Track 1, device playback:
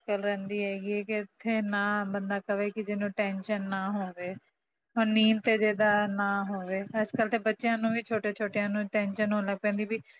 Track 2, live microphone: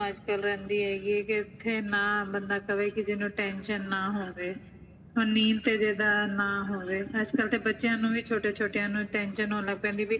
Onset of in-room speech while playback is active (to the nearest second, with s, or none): none